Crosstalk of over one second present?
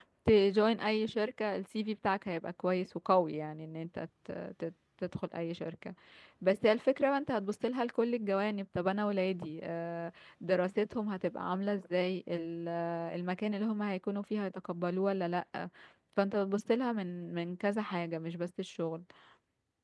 No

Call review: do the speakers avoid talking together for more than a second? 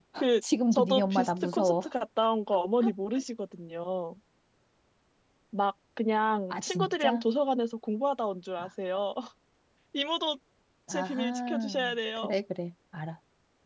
No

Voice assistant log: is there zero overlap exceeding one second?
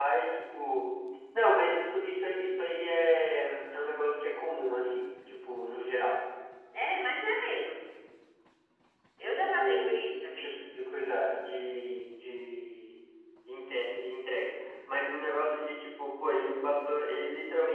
No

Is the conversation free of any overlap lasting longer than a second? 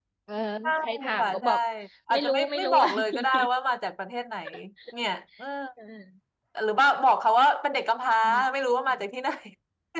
No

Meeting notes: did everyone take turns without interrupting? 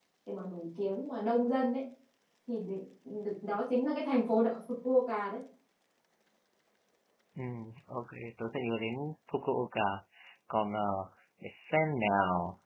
Yes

